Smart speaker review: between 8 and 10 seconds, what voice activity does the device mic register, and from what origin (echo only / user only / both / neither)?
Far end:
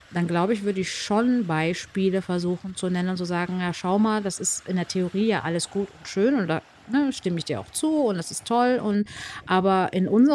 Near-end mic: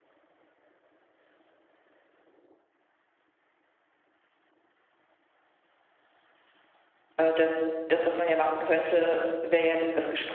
user only